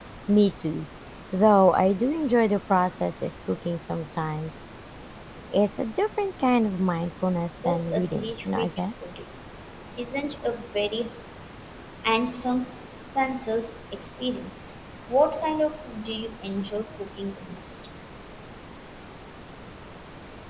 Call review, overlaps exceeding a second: present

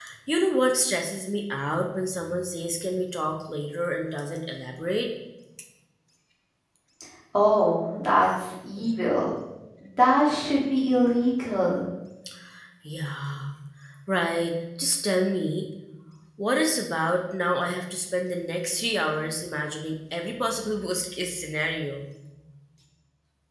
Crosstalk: none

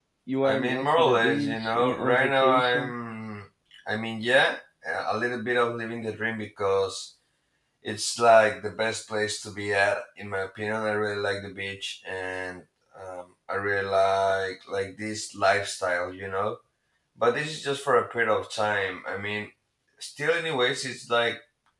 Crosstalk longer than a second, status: present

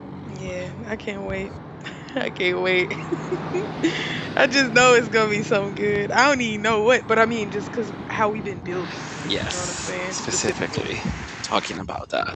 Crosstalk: present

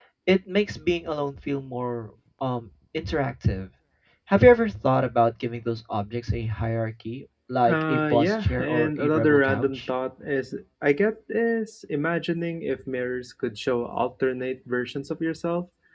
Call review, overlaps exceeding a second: present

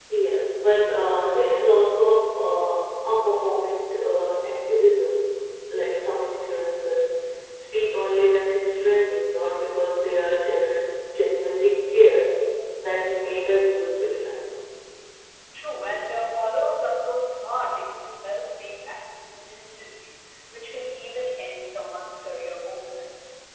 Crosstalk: none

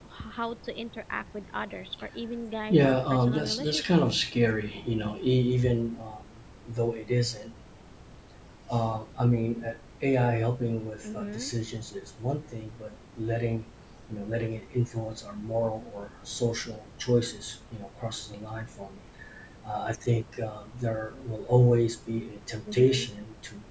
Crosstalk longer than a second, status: present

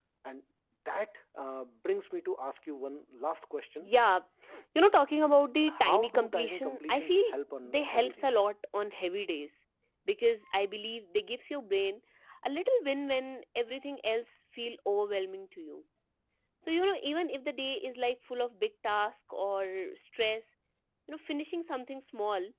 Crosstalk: present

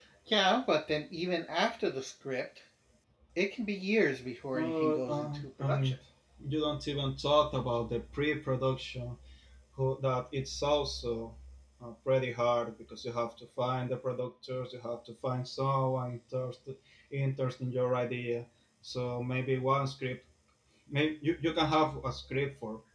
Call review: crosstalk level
present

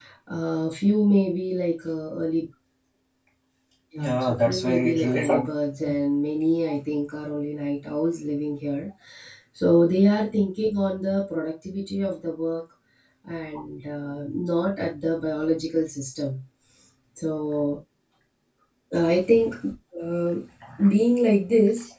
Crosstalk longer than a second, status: present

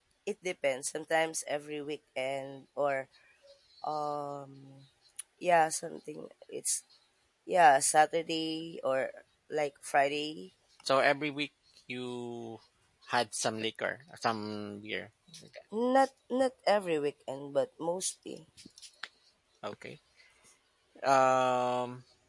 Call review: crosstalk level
none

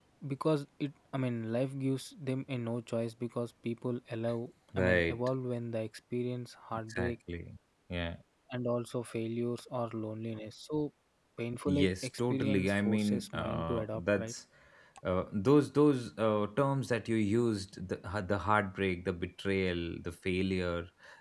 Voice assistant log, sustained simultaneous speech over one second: present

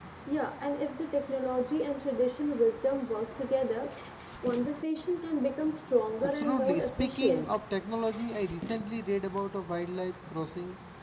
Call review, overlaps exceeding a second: present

